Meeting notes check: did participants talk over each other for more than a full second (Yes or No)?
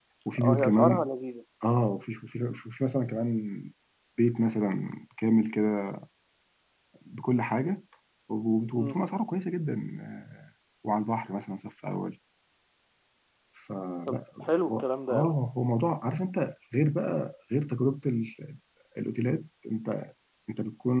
Yes